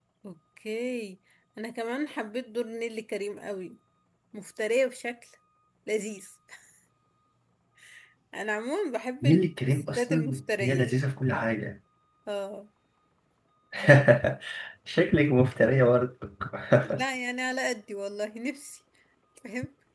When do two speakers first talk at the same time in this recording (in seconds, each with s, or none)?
9.2 s